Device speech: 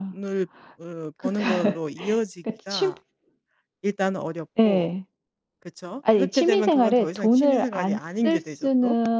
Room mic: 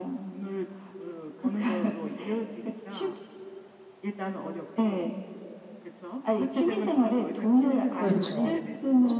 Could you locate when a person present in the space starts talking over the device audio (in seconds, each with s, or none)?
8.0 s